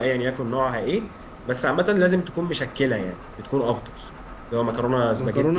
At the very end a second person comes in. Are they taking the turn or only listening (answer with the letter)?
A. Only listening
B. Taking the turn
B